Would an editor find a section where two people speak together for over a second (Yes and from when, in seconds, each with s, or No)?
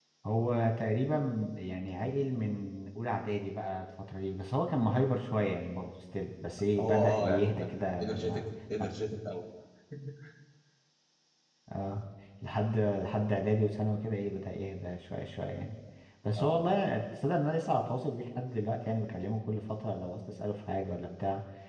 Yes, from 6.8 s